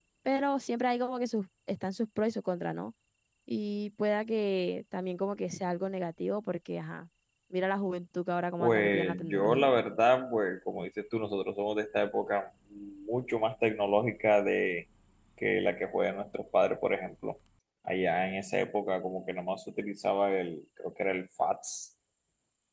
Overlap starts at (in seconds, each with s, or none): 8.6 s